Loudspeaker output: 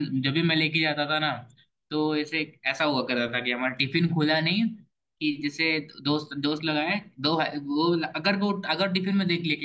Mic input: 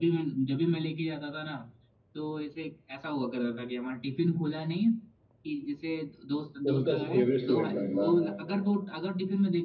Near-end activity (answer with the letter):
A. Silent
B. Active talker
B